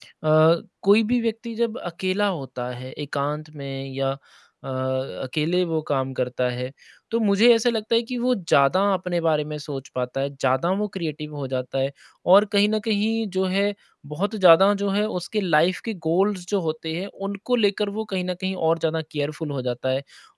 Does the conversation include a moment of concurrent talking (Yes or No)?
No